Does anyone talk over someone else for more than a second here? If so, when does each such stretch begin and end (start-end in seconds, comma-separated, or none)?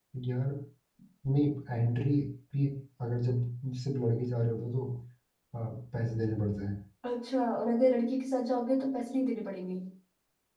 none